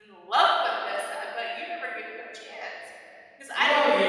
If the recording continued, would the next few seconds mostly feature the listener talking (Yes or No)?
Yes